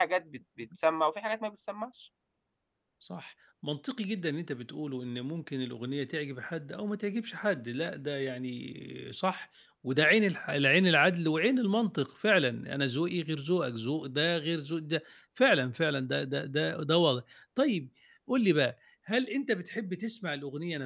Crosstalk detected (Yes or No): No